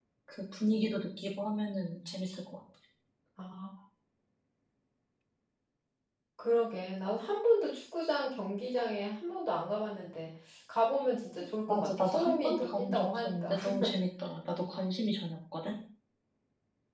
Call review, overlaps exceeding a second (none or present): present